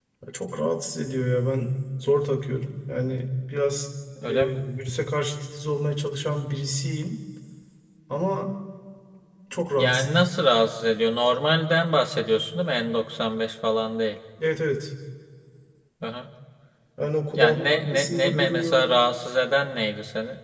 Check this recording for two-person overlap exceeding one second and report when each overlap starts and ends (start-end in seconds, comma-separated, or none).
17.3-18.9